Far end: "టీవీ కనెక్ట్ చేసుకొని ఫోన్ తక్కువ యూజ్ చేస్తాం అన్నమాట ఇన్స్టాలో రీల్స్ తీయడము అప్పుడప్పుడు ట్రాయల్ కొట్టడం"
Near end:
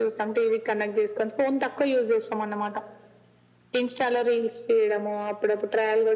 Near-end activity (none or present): none